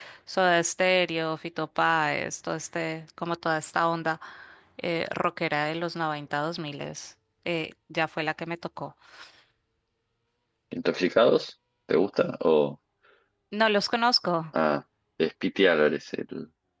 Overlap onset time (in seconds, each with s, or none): none